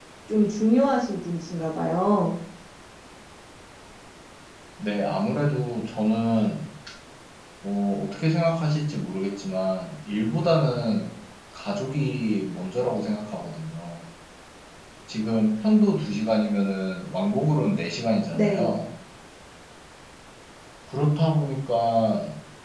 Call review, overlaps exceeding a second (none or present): none